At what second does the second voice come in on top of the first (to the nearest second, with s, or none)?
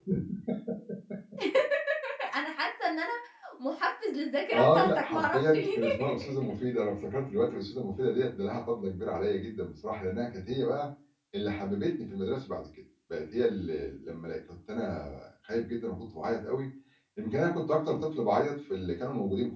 5 s